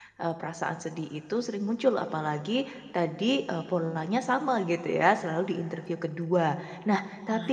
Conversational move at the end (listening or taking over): listening